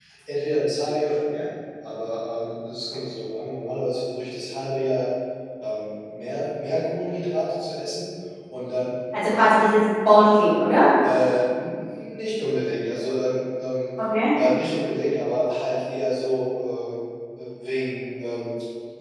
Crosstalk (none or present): none